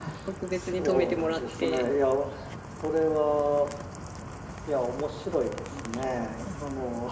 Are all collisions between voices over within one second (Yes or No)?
No